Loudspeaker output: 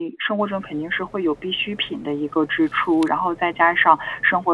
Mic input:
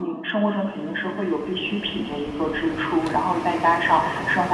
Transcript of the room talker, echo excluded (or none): none